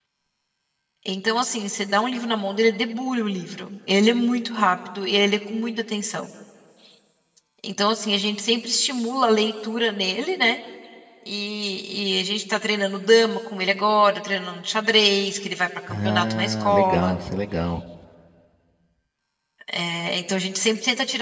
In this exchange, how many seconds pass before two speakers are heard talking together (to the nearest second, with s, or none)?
16 s